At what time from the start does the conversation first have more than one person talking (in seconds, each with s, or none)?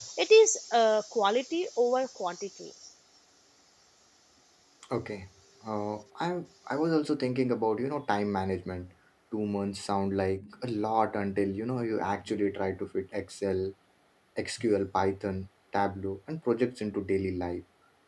none